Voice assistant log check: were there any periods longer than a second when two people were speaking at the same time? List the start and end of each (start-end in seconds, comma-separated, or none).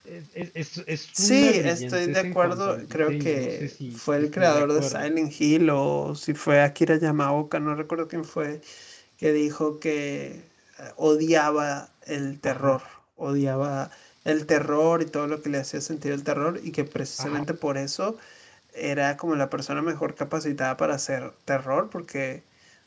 1.2-5.1